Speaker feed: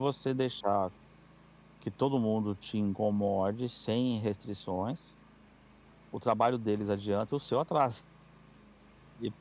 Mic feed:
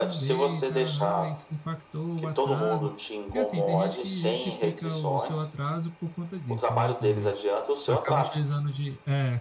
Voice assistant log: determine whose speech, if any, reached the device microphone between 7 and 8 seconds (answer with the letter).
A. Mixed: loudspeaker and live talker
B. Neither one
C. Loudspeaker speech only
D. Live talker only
A